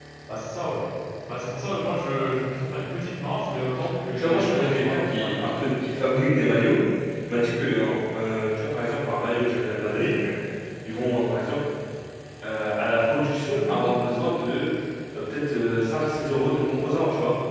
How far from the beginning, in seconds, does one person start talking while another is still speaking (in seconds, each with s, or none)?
4.2 s